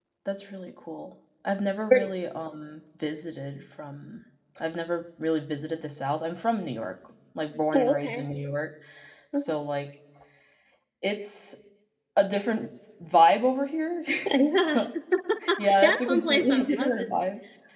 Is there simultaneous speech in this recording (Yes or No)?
Yes